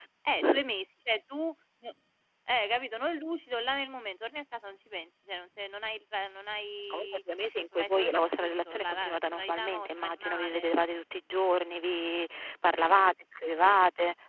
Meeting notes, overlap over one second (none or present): present